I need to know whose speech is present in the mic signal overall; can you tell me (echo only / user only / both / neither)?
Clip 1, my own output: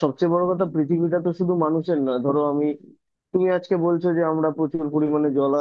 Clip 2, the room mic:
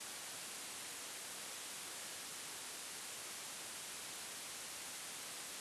neither